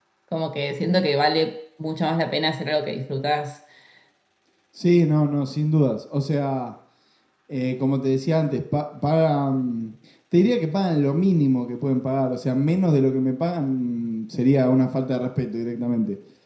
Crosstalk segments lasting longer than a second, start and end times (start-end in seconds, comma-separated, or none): none